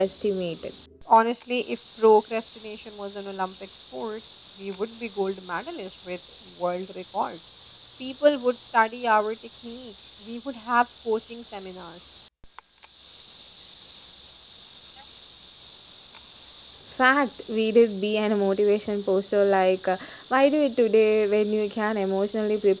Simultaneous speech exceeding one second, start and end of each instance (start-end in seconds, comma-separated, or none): none